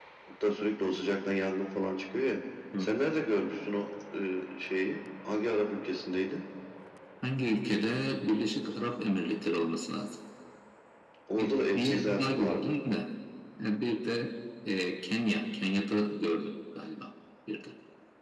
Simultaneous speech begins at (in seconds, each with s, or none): 11.4 s